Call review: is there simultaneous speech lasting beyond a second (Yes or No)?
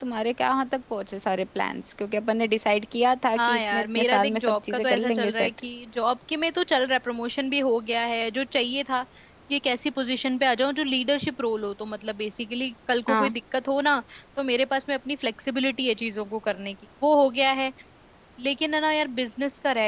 Yes